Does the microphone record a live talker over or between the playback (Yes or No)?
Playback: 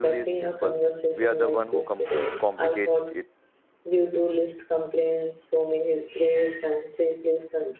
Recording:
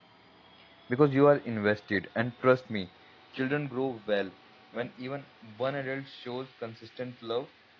Yes